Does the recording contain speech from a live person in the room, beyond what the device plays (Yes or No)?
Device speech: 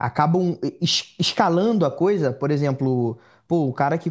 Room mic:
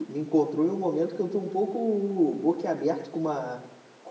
Yes